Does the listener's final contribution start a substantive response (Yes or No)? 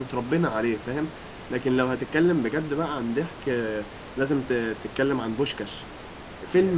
No